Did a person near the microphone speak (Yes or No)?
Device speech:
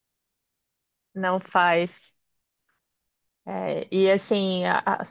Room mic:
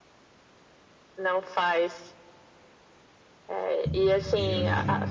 Yes